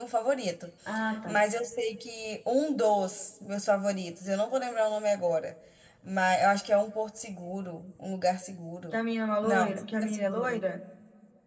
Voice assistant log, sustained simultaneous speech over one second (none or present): present